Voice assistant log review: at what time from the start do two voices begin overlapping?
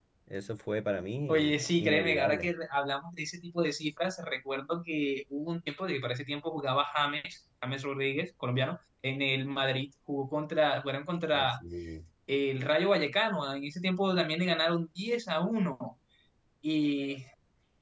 1.3 s

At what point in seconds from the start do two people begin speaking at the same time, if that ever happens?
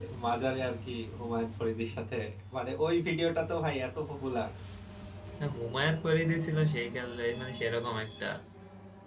none

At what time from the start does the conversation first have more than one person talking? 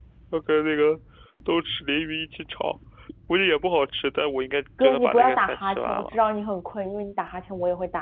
4.8 s

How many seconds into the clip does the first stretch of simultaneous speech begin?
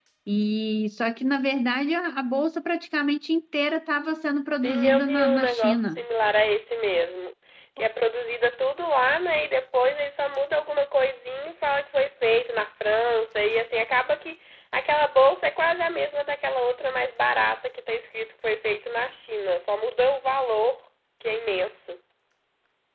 4.6 s

